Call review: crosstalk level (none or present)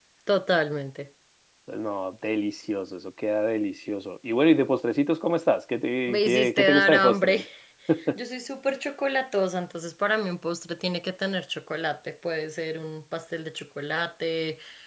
present